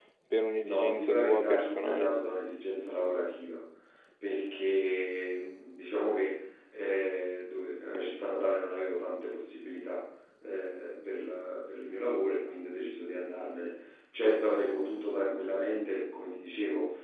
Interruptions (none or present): present